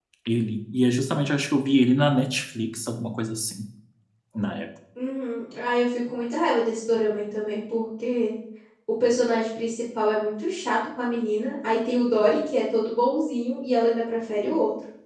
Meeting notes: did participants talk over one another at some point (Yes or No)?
No